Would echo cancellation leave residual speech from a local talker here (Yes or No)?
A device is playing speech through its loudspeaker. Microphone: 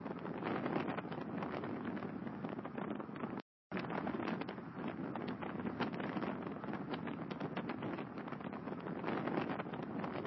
No